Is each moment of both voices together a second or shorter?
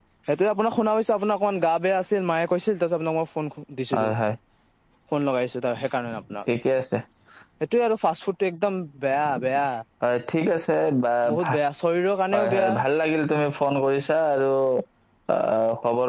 Yes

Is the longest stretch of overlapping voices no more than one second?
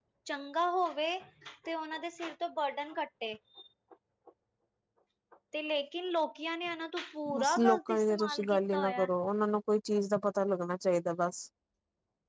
No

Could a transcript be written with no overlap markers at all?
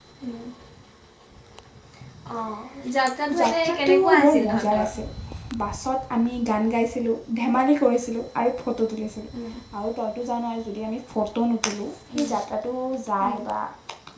No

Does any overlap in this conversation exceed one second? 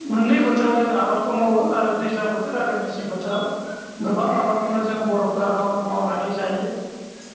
No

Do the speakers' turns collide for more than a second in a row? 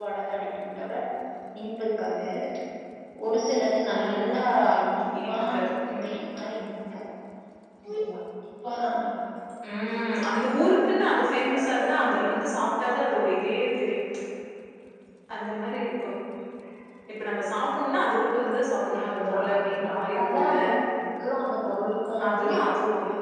Yes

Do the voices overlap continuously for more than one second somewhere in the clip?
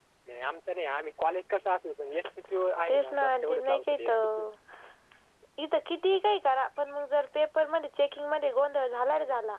Yes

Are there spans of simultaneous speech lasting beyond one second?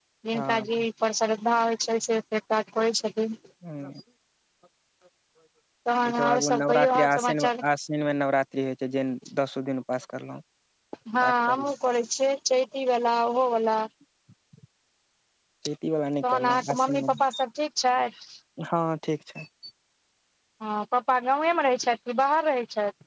Yes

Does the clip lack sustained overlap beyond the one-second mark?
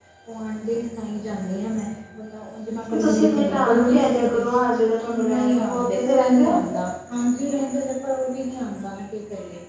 No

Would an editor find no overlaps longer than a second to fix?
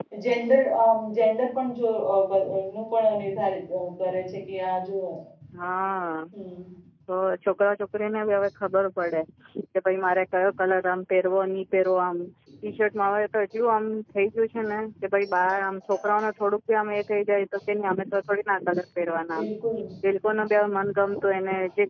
Yes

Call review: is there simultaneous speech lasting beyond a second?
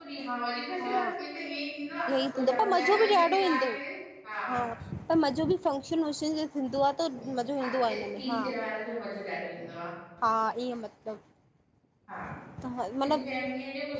Yes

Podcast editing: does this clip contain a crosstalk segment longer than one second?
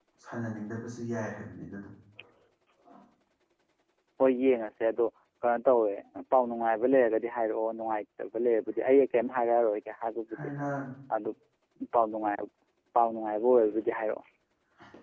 No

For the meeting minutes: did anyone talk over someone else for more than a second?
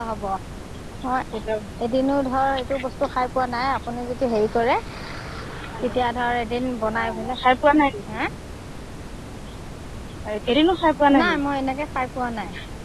No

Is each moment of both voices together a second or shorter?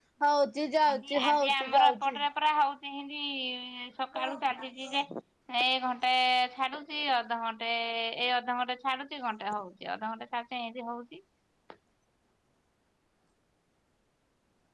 No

